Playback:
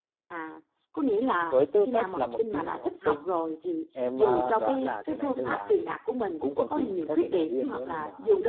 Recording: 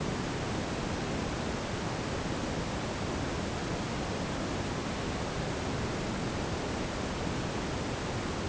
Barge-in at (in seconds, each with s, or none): none